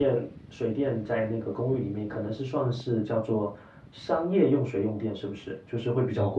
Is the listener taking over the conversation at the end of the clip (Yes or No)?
Yes